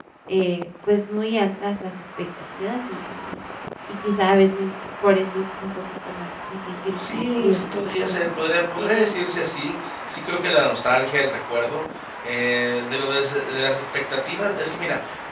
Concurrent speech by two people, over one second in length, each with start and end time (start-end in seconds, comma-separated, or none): 7.0-8.3